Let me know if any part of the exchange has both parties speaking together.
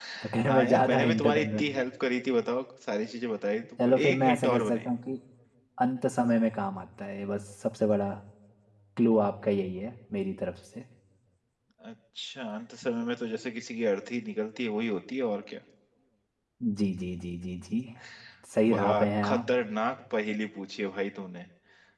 Yes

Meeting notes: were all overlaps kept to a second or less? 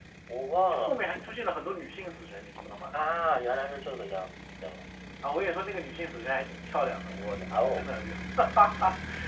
Yes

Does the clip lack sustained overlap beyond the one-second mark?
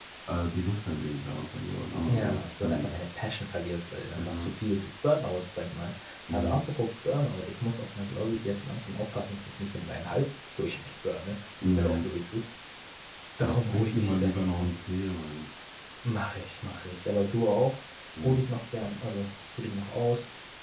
No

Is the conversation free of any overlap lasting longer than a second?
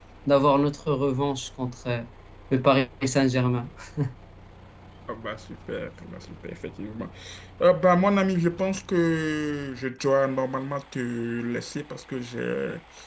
Yes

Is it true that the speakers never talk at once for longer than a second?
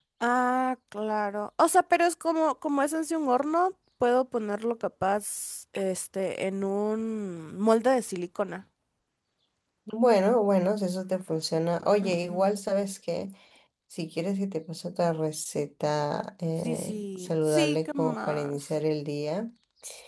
No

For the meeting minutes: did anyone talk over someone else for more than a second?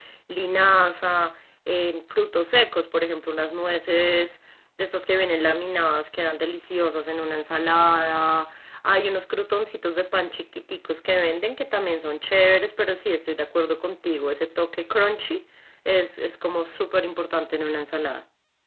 No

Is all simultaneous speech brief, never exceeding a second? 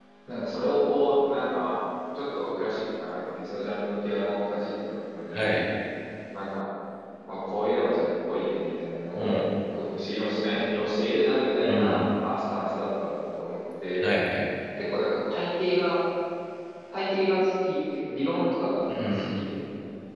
Yes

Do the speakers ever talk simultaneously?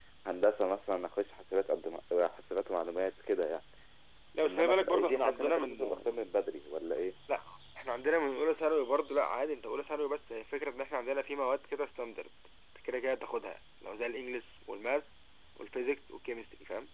Yes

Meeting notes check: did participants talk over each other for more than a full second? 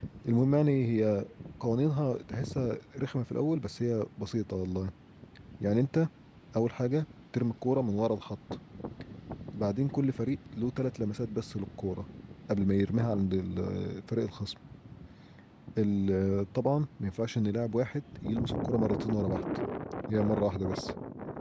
No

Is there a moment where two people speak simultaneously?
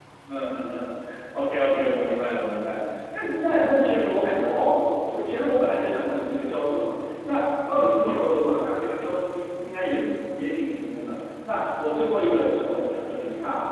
No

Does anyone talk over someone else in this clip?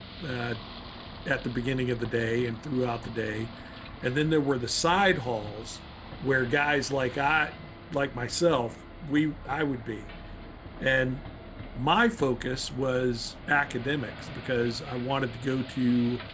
No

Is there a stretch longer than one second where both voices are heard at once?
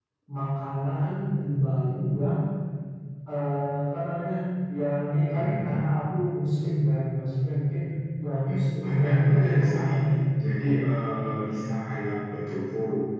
Yes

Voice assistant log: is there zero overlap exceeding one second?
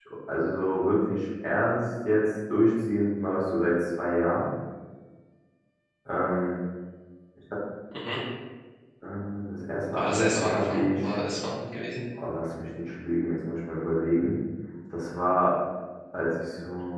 No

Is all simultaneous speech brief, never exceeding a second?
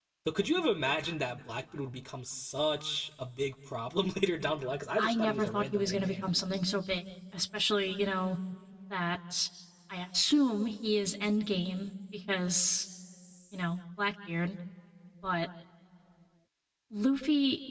No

